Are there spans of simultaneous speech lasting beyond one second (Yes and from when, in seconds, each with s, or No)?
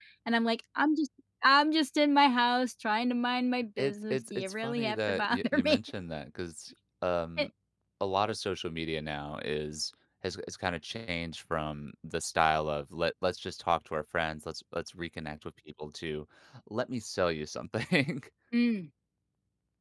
Yes, from 3.8 s